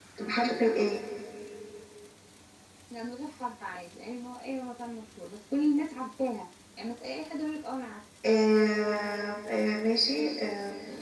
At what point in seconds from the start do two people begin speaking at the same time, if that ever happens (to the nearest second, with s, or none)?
none